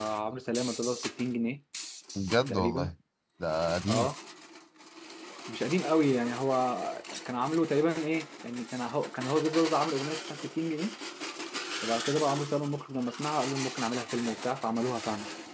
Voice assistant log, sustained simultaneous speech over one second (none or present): none